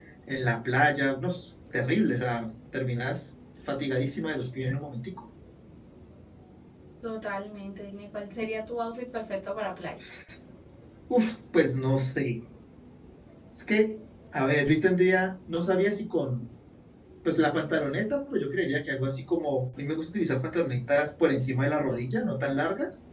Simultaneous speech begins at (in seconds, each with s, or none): none